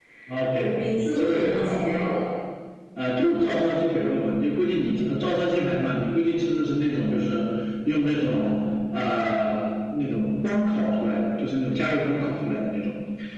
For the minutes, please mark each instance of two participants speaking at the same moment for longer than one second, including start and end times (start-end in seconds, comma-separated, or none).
0.5-1.8